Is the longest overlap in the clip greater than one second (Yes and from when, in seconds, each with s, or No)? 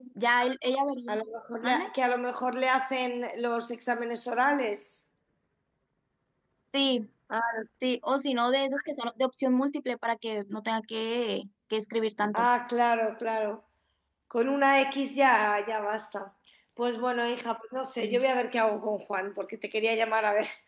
No